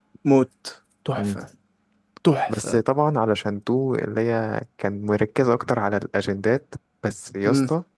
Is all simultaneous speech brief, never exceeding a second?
Yes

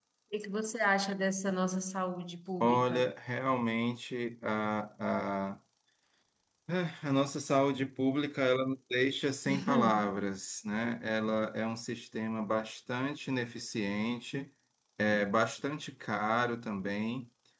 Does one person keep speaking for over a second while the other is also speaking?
No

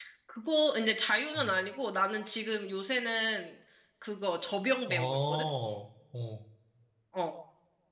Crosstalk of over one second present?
No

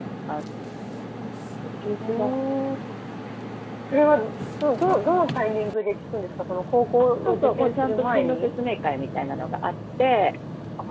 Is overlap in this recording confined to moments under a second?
No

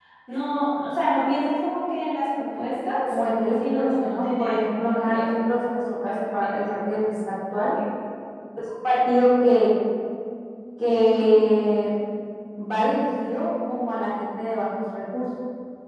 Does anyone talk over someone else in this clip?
Yes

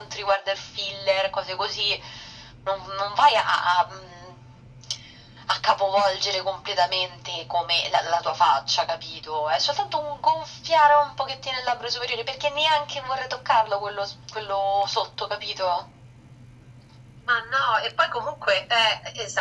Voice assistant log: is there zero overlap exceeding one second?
Yes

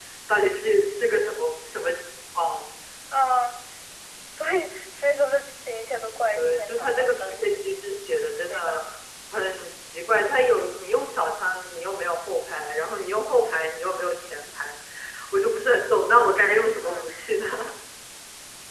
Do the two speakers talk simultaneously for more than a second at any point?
Yes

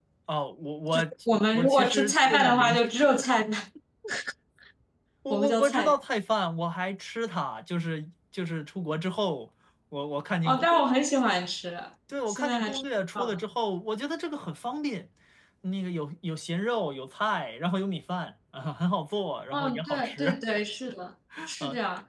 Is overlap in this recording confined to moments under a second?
No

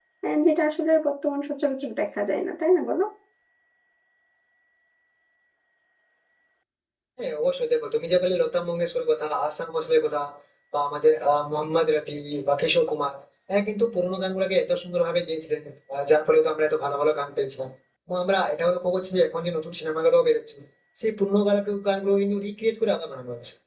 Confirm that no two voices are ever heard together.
Yes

